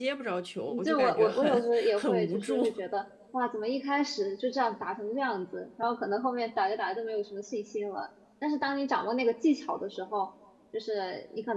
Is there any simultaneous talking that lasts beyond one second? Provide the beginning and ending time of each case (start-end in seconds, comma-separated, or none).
0.7-2.6